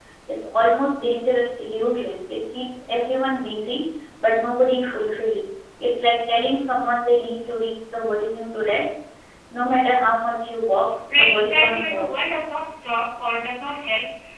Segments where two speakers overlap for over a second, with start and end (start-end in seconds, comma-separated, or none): 11.1-12.3